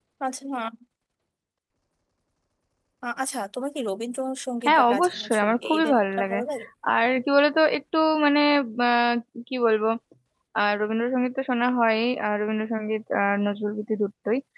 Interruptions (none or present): present